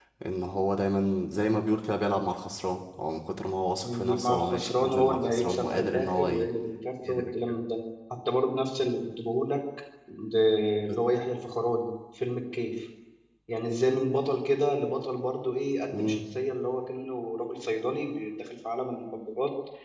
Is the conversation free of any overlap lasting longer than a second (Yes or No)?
No